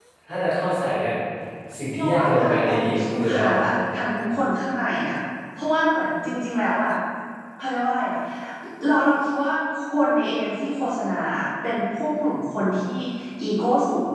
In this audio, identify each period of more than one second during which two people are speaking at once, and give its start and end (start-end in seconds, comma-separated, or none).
1.9-3.6